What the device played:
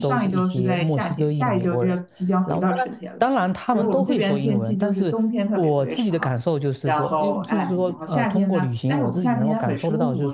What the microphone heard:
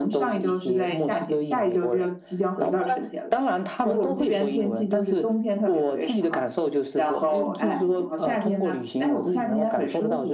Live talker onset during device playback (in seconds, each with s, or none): none